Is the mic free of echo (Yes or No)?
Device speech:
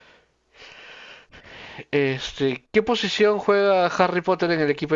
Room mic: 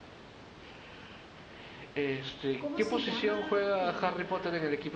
No